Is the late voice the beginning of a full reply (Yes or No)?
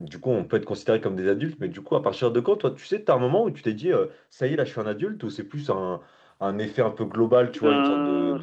No